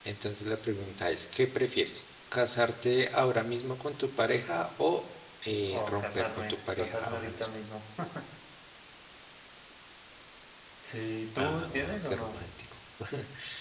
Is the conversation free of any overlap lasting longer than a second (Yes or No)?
No